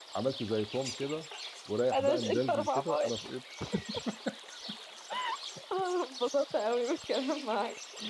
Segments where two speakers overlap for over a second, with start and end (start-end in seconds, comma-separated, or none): 1.9-3.1